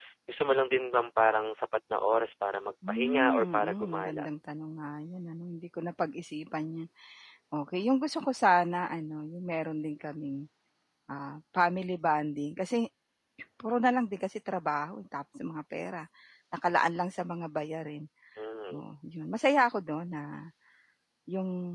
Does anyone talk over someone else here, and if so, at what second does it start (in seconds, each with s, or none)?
2.8 s